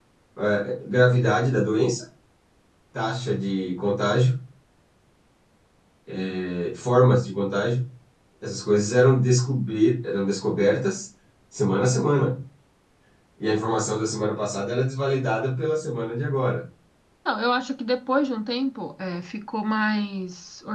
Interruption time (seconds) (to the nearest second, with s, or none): none